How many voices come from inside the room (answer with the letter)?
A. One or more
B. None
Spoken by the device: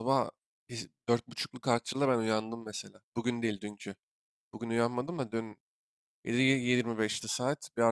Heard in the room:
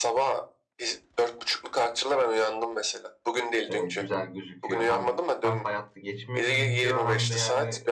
A